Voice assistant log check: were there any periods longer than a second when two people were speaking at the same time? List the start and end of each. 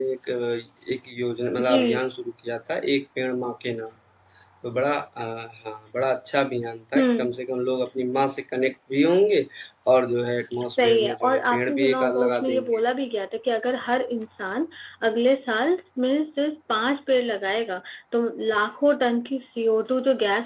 10.7-12.8

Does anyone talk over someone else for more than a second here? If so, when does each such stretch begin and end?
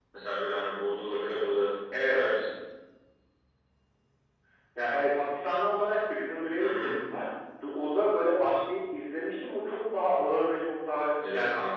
none

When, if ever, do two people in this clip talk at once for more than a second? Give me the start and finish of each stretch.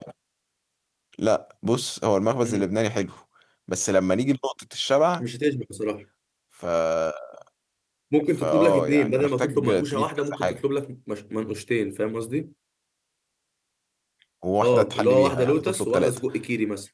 8.4-10.6, 14.6-16.2

